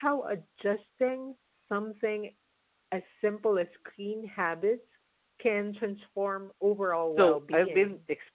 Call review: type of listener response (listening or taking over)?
taking over